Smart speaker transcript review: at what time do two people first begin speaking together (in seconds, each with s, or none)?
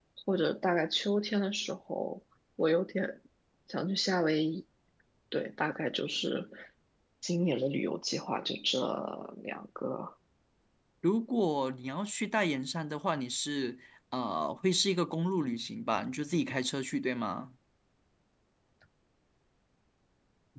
none